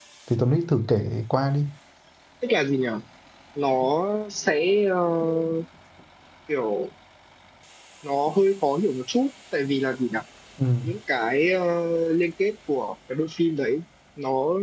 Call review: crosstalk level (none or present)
none